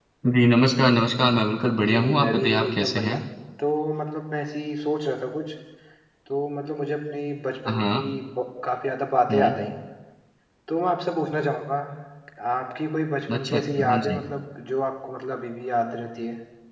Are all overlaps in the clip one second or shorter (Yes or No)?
No